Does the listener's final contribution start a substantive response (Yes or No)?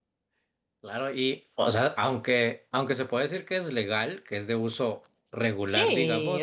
Yes